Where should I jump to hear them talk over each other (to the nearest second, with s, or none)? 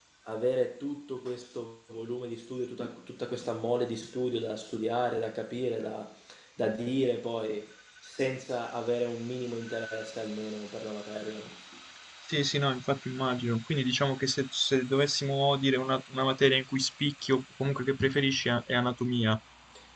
none